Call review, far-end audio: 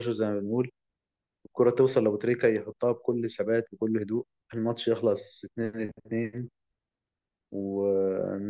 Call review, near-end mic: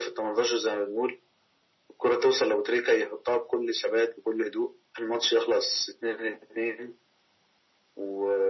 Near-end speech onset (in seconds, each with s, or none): none